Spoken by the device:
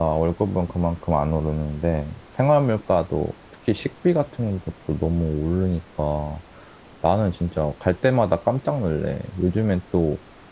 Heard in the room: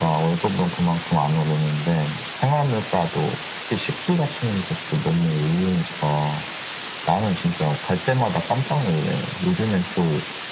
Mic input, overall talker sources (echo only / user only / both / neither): echo only